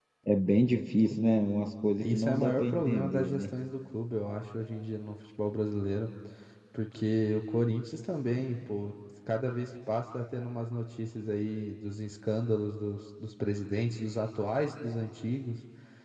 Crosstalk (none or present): present